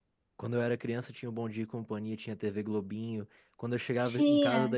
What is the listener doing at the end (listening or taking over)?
listening